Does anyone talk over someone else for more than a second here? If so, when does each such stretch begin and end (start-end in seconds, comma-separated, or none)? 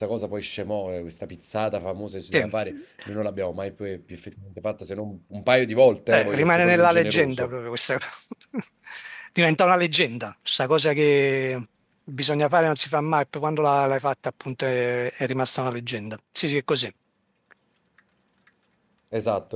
6.1-7.5